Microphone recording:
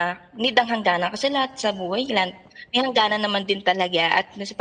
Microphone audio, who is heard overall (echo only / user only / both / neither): echo only